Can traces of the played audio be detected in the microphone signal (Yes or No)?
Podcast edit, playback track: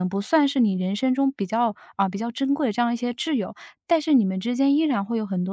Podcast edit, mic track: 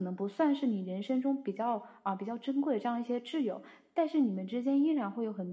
Yes